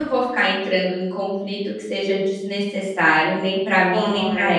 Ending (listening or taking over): taking over